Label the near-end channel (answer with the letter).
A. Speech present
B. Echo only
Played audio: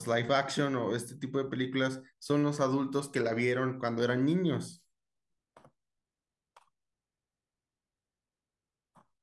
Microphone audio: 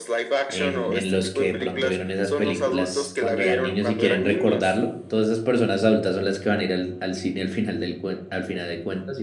A